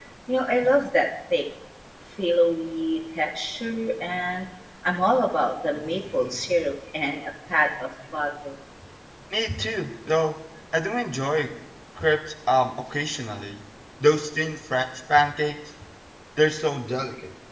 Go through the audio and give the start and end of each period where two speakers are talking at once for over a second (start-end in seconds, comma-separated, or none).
none